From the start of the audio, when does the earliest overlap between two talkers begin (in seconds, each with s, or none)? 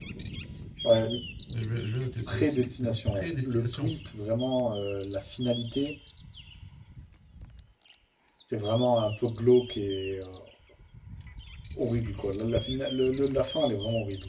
2.3 s